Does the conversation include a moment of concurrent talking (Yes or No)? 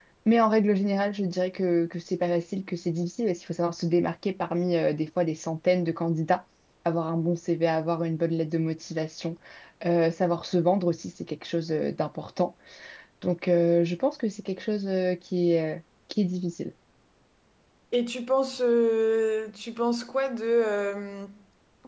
No